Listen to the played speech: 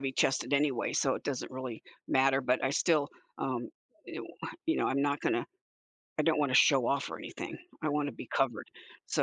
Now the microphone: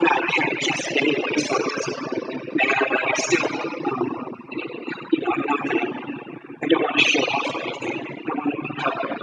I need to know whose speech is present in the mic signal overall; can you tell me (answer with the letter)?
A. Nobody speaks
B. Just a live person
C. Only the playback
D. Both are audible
C